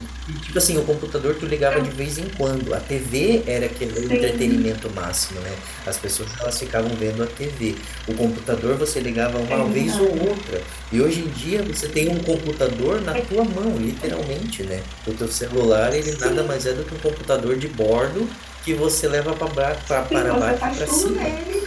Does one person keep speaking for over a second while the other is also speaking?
Yes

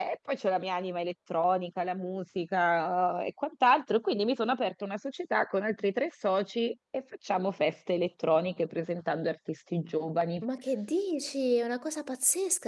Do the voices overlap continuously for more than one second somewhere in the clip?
No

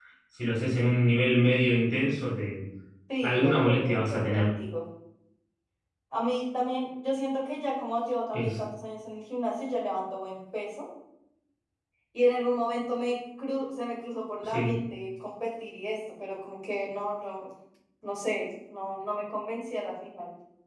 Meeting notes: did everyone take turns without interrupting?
No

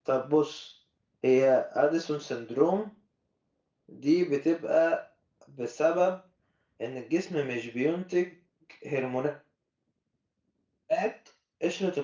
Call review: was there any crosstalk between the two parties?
No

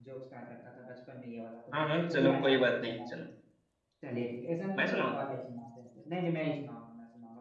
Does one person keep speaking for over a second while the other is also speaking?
Yes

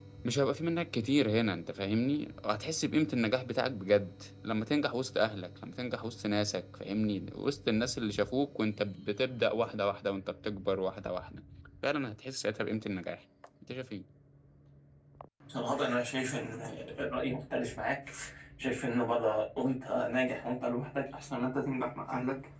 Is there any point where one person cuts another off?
No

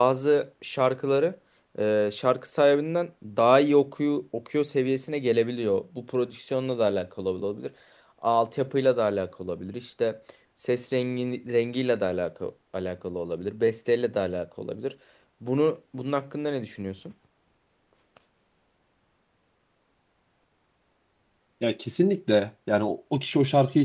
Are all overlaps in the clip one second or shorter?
Yes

